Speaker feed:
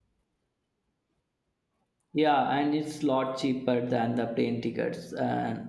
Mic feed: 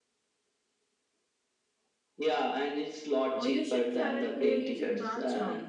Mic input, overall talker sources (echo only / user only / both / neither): both